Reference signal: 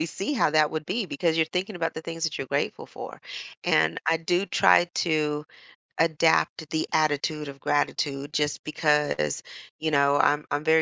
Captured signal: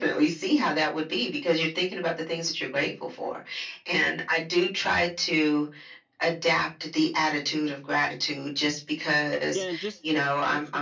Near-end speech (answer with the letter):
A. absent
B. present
B